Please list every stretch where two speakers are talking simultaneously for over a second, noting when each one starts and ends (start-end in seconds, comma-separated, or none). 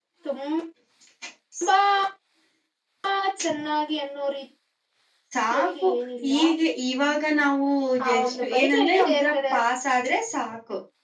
8.0-9.3